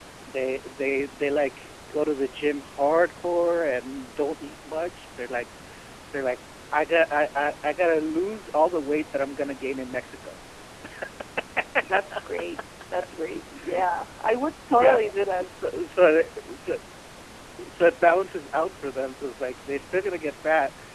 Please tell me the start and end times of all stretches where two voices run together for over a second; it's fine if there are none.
none

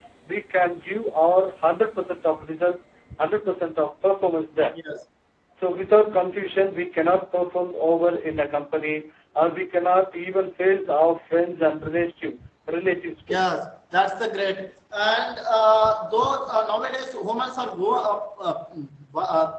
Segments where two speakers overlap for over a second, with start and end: none

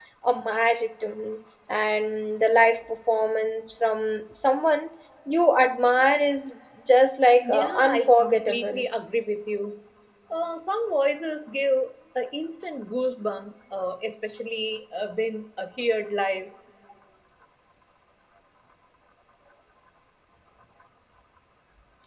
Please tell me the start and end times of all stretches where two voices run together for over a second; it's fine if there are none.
7.4-8.8

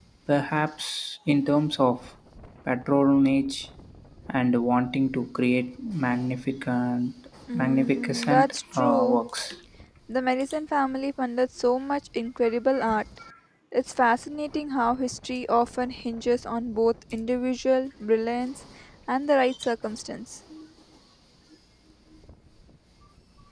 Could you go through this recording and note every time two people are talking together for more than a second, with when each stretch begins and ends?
7.5-9.2

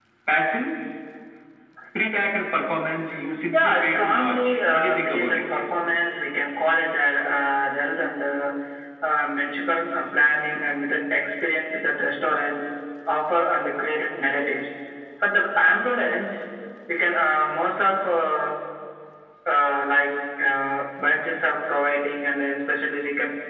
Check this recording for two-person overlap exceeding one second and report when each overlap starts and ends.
3.5-5.4

